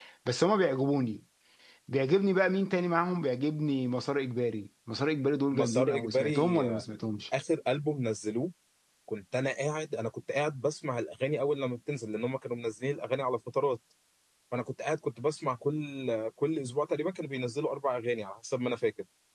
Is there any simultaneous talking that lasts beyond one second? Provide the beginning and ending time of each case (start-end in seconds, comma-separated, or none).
5.5-6.8